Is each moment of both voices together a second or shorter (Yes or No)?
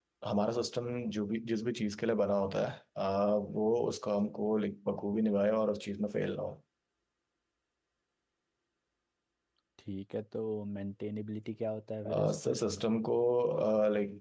Yes